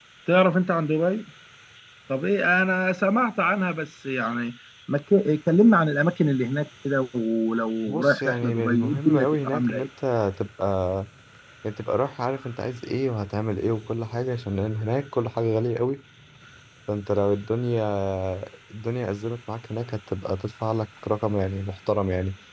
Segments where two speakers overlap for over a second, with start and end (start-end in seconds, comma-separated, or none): 7.9-9.8